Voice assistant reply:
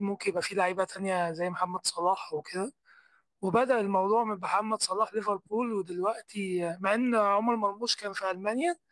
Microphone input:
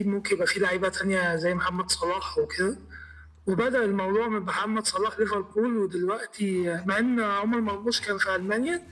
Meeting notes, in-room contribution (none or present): none